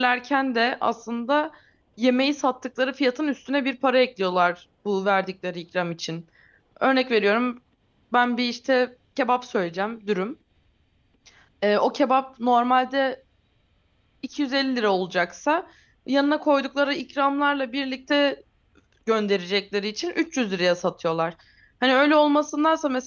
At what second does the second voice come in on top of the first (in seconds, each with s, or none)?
none